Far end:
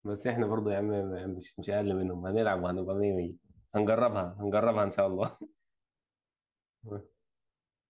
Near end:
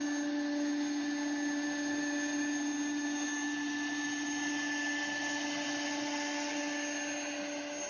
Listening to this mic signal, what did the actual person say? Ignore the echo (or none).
none